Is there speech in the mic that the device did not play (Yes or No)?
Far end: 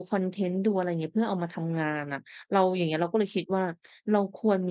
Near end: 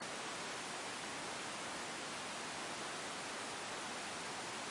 No